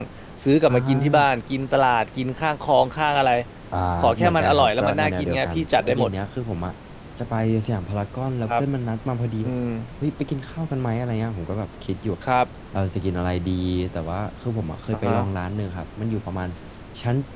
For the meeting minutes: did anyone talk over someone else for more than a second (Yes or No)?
Yes